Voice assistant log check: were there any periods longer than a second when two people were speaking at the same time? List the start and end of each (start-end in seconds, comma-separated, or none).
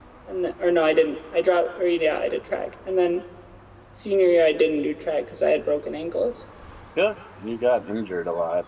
none